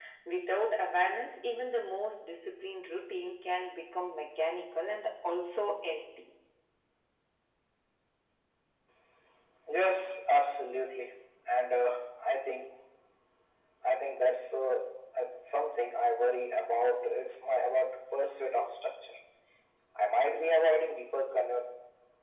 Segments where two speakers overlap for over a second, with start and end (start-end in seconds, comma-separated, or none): none